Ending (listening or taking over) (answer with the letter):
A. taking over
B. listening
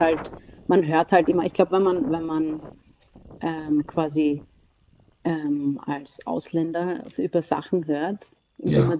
B